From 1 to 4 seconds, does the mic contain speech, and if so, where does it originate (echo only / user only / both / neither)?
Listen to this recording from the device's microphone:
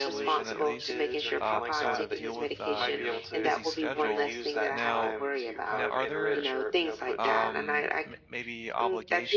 both